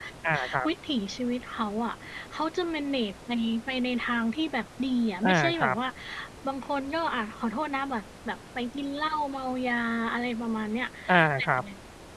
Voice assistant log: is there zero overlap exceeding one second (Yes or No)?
Yes